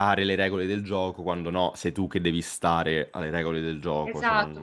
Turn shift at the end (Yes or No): Yes